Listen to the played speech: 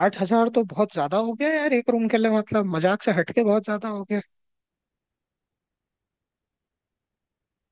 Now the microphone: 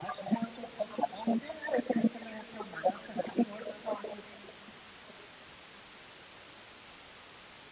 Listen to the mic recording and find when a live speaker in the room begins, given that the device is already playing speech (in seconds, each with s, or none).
none